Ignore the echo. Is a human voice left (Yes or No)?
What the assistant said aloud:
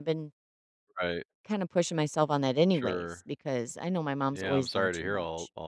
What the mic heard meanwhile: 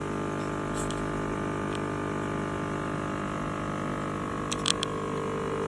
No